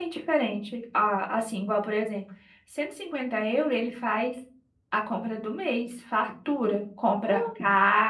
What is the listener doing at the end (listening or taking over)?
listening